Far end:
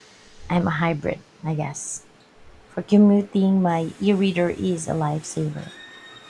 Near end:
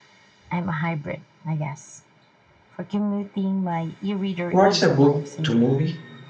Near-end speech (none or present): present